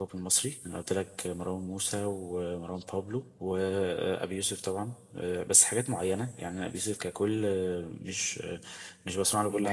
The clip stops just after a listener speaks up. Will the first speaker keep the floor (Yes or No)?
No